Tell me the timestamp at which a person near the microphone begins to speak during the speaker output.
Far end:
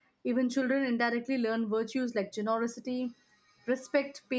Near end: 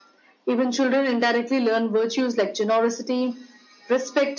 none

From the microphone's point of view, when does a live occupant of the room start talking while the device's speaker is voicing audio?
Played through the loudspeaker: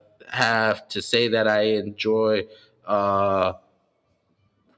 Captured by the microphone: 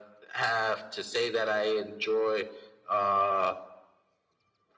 none

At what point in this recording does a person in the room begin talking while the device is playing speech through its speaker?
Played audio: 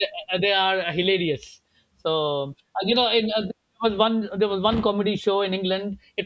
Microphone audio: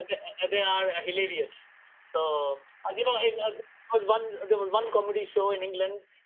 none

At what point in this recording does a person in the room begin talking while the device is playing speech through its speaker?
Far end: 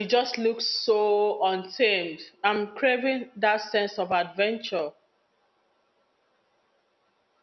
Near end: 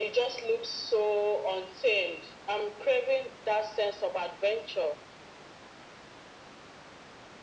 none

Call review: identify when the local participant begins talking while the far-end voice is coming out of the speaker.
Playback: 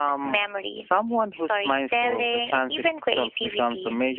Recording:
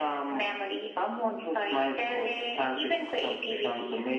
none

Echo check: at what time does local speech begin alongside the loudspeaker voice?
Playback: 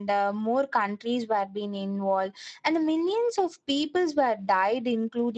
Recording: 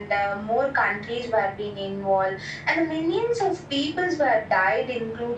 none

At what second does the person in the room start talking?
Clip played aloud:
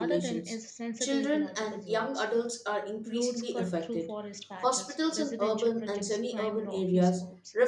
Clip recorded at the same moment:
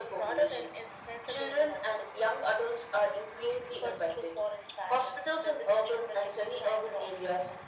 none

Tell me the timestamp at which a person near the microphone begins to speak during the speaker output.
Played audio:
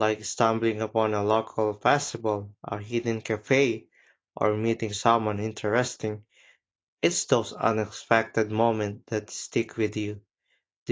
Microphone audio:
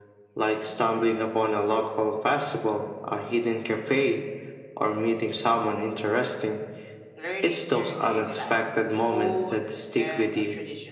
7.2 s

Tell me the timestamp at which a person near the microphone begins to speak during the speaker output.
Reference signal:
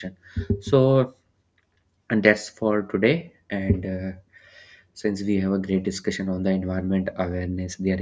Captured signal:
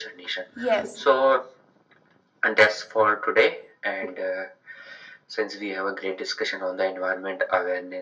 0.5 s

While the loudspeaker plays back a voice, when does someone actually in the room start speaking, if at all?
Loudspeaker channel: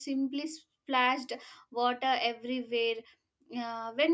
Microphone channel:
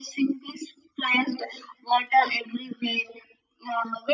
none

